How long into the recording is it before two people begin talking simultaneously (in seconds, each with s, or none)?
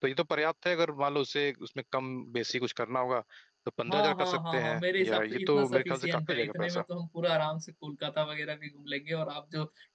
3.9 s